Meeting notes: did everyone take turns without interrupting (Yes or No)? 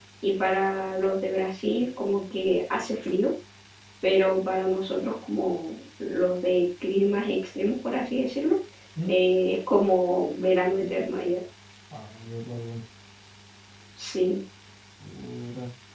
Yes